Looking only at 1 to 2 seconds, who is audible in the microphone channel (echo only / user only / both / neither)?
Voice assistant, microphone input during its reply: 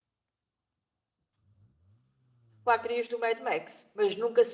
neither